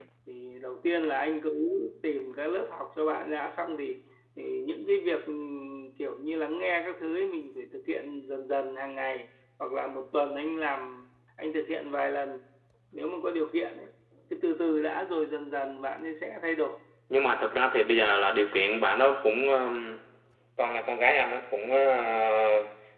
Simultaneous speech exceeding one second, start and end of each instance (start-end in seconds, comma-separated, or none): none